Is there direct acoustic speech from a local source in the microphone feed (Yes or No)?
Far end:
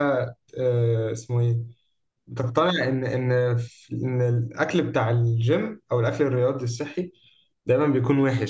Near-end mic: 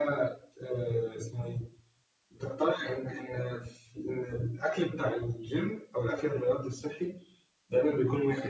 No